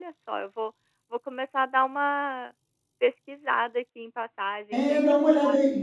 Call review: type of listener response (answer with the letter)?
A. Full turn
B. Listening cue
A